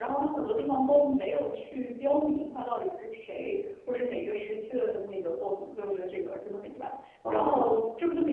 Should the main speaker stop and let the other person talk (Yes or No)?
No